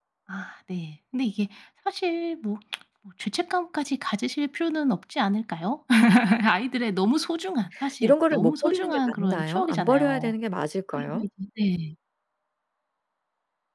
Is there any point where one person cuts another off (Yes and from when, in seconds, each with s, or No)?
Yes, from 8.0 s